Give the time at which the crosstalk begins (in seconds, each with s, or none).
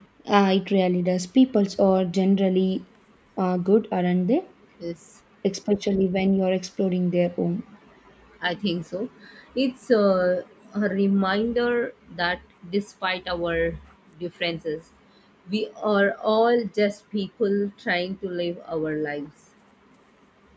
none